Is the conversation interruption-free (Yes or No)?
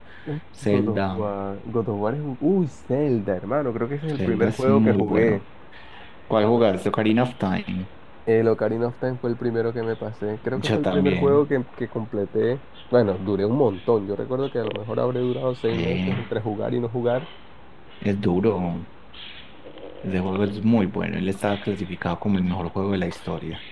No